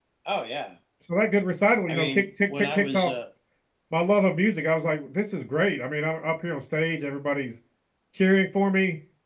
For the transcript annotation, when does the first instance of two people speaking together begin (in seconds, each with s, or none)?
1.9 s